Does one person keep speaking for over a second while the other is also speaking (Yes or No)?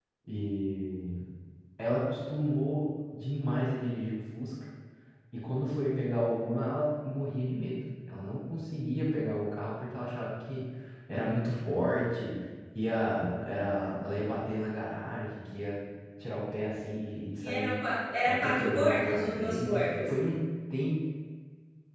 Yes